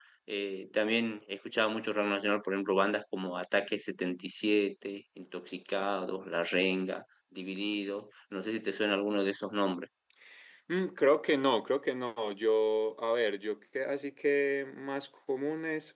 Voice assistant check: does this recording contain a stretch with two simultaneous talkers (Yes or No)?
No